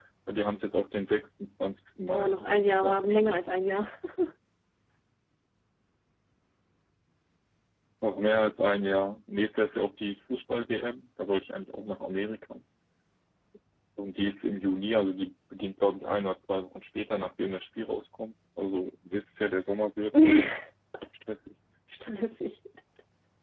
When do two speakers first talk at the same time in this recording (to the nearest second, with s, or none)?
2 s